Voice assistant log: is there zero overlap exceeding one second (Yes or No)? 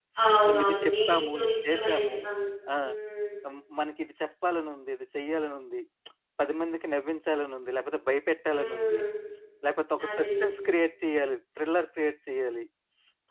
No